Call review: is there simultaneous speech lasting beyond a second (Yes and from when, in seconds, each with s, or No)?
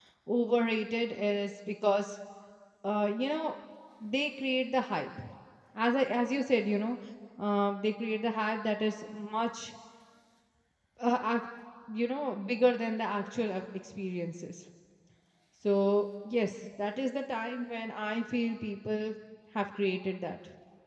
No